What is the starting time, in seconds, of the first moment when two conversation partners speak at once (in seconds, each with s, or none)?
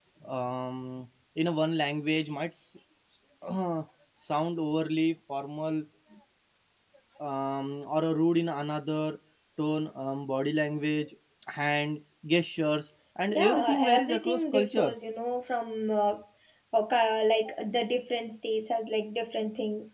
13.3 s